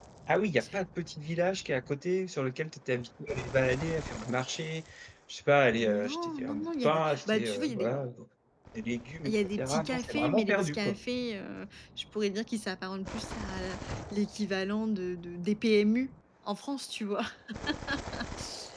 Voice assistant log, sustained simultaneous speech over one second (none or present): present